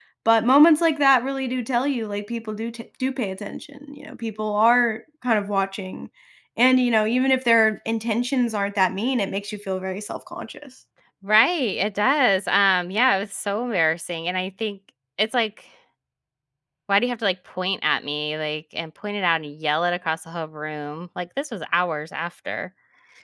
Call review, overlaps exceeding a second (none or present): none